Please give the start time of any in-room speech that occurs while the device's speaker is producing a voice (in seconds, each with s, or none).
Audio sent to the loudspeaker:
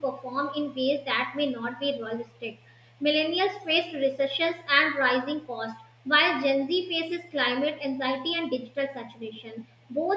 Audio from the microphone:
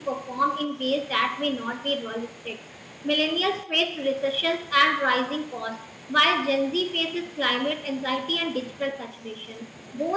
none